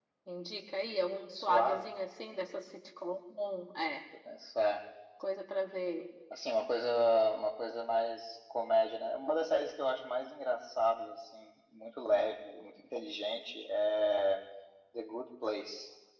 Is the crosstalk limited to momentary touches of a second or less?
Yes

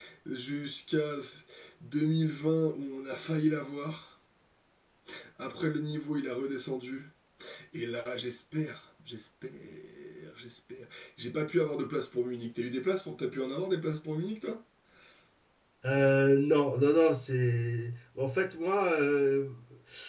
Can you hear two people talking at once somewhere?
No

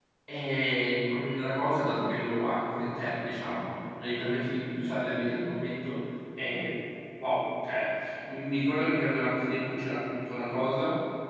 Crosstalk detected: No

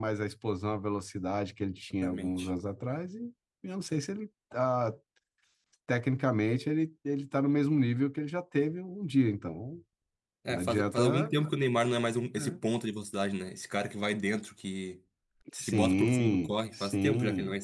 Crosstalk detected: Yes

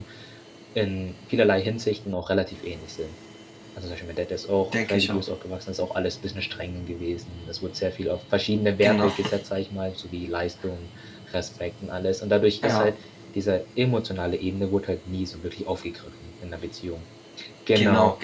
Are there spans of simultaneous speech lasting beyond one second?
No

